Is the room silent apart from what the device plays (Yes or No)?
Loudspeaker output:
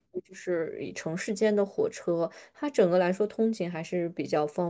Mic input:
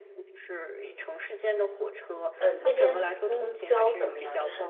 No